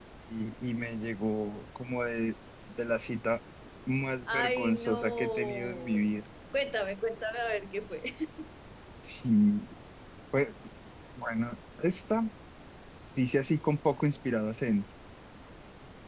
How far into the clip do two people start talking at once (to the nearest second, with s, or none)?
4 s